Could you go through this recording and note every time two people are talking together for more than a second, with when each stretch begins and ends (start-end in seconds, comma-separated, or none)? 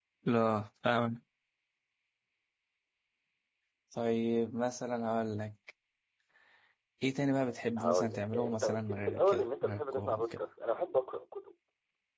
7.8-10.4